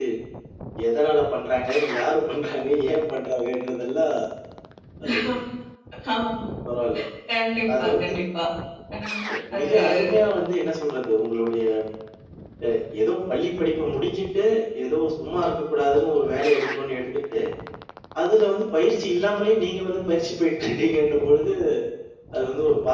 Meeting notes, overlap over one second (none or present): none